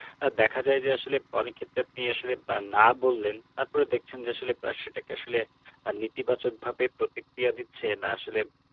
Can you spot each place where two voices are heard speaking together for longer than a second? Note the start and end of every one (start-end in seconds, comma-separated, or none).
none